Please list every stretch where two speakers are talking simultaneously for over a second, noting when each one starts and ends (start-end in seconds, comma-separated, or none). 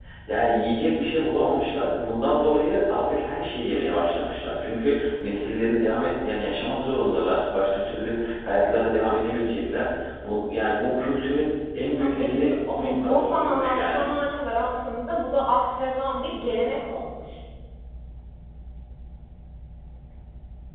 12.0-14.1